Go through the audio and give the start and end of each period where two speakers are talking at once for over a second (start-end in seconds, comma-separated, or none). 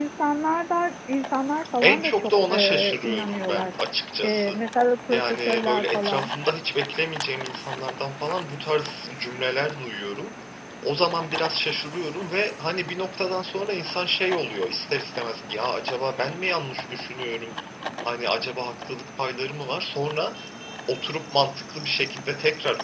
1.8-3.7, 5.1-6.3